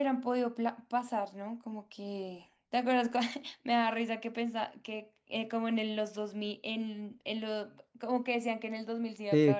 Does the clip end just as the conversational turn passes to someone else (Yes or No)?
Yes